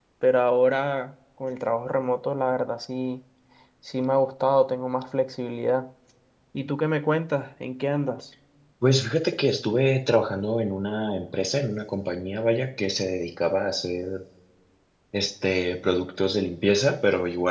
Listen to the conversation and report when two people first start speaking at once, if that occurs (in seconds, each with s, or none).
none